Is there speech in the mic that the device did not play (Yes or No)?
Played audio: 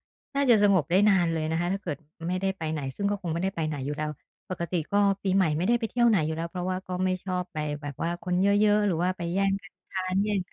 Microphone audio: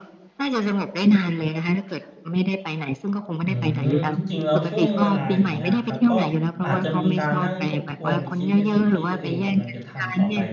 Yes